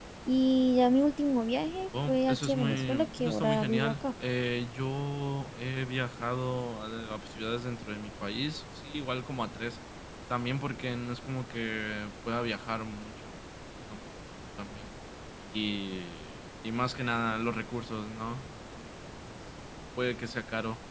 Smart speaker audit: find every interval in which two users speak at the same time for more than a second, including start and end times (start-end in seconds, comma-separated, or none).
2.1-4.1